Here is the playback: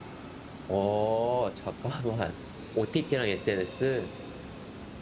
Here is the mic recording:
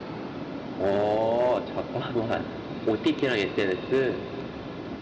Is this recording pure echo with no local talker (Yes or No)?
Yes